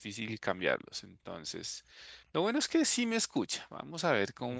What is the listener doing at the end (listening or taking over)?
listening